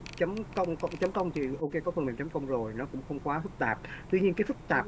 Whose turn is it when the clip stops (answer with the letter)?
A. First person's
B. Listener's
A